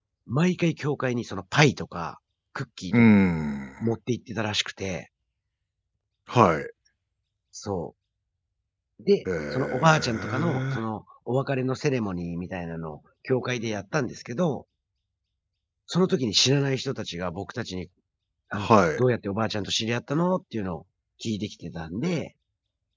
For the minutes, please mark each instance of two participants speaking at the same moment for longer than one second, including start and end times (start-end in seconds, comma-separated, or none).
9.5-10.8